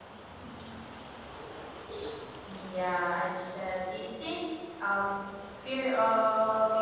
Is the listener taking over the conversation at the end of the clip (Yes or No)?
No